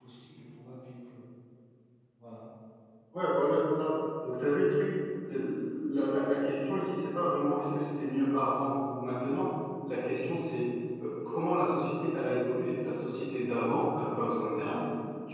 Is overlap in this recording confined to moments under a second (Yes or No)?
Yes